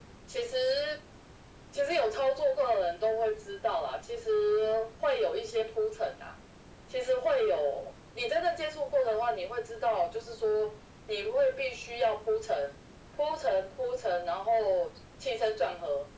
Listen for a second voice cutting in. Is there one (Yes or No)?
No